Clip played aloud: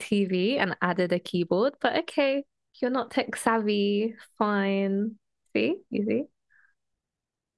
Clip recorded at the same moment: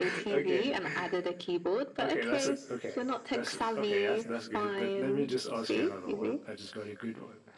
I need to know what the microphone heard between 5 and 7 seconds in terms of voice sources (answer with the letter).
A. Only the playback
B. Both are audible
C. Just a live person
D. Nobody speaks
B